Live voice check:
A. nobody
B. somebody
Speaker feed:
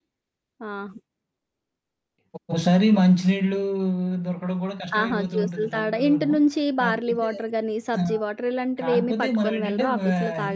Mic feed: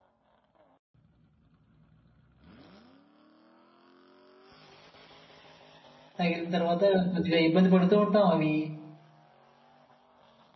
B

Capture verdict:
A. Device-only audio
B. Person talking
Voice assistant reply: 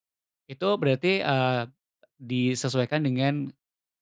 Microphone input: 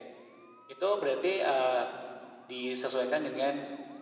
A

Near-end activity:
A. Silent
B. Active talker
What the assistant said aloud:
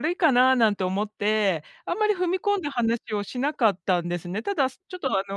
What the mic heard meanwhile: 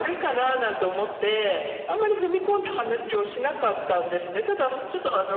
A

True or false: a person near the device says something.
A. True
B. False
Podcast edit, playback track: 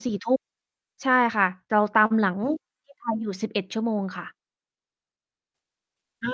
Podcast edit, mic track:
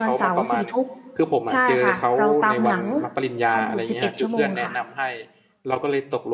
A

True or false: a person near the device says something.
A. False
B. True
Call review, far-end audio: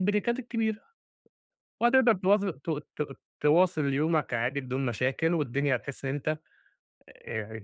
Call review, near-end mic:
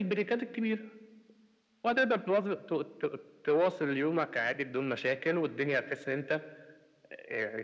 A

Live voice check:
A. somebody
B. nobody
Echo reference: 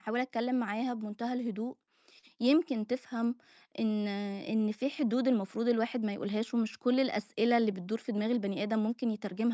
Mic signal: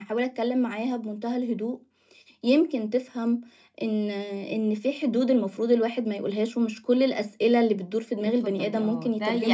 A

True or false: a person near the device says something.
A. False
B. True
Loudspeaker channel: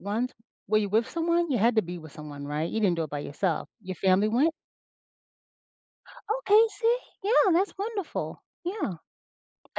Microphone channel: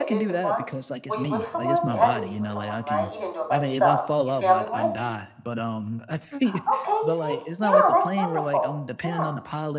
B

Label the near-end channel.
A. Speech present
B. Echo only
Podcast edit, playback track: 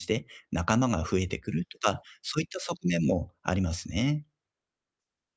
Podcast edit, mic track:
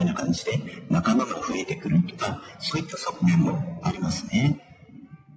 B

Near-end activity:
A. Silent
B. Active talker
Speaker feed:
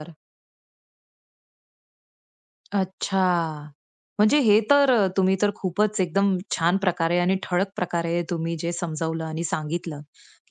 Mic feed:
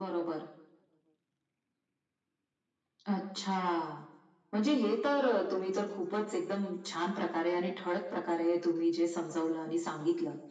A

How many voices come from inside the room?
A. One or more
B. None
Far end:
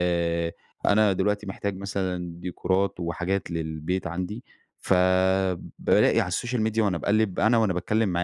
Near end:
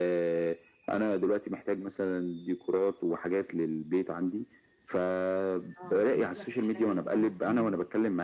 A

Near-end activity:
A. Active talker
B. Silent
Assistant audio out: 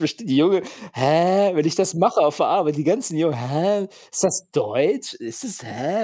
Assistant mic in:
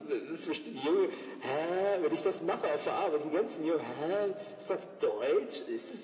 B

